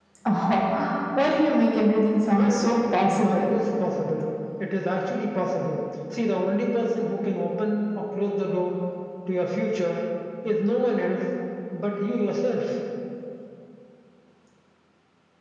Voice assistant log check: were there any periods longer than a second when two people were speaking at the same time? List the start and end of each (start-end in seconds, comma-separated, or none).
2.3-3.6